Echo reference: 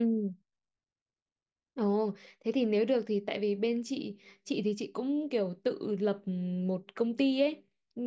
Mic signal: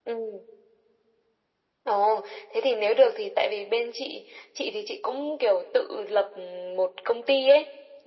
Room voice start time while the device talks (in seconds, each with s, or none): none